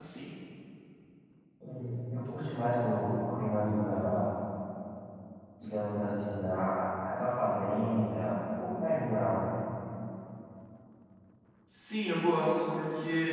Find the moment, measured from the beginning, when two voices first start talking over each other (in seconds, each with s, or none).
none